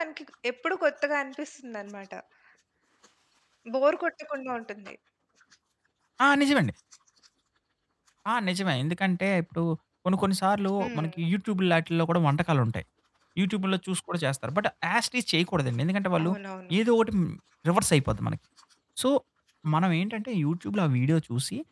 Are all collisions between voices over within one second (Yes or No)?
Yes